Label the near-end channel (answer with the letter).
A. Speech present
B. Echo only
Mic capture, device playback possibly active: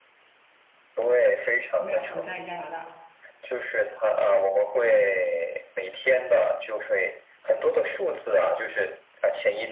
A